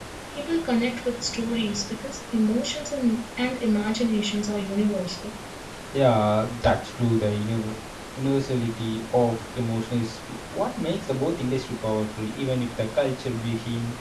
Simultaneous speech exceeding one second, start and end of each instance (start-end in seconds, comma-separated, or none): none